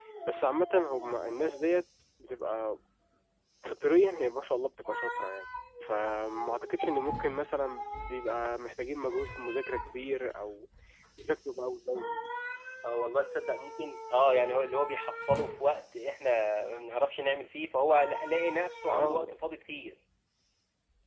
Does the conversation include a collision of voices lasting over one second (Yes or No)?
No